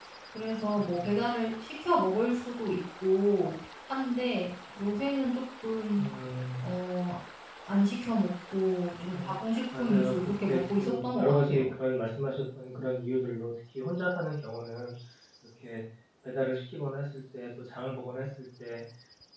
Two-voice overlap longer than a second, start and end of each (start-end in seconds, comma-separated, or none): 9.8-11.7